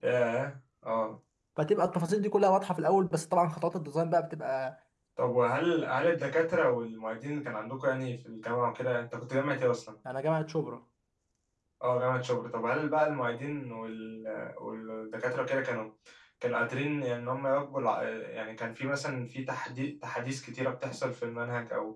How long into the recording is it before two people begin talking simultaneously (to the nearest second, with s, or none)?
none